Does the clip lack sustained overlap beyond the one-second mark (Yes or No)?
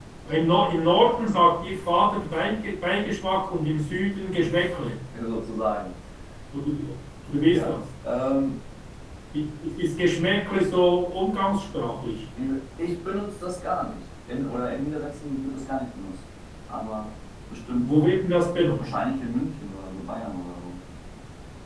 Yes